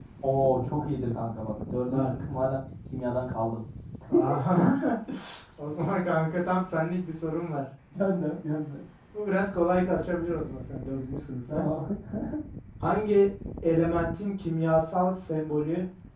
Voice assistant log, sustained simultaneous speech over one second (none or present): none